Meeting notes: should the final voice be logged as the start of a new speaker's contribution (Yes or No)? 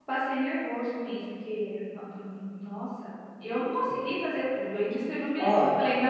No